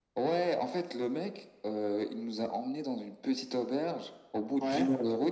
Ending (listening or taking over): listening